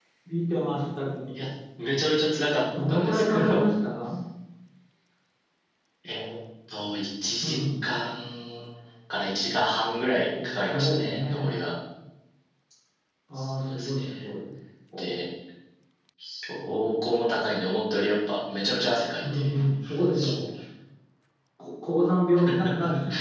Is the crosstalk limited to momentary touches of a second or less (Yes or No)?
No